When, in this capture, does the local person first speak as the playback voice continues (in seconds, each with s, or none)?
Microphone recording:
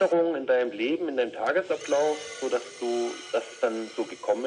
none